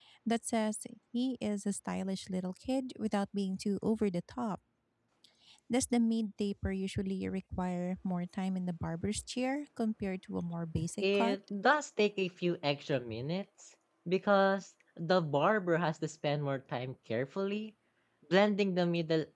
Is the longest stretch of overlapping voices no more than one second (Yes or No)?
Yes